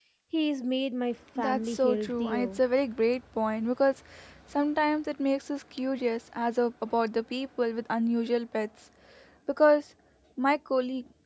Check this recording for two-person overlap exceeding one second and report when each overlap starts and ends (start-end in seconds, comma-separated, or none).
1.4-2.6